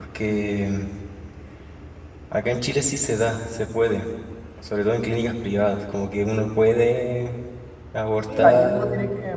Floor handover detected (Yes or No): Yes